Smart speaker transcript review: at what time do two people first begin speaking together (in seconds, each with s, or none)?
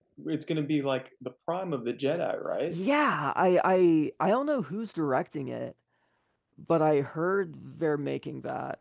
none